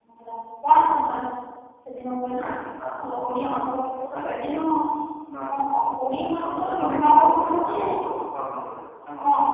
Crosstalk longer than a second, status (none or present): present